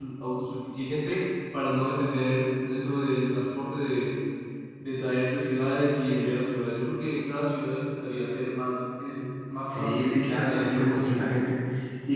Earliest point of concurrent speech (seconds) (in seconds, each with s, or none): 9.7 s